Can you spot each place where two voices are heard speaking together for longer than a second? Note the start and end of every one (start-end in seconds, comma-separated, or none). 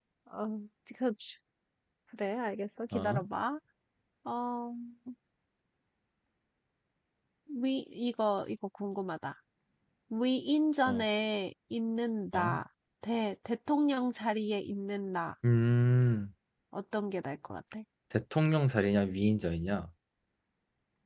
none